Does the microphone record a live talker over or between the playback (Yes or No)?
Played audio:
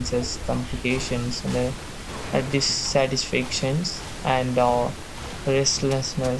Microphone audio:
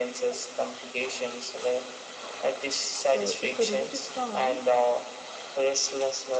Yes